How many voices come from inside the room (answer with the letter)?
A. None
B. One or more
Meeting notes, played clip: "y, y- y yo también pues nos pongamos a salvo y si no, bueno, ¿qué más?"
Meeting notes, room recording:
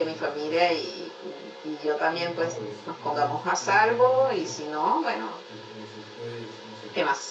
B